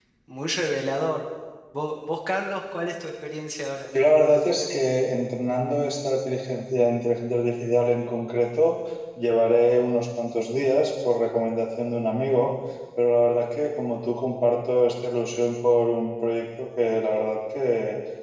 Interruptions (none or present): none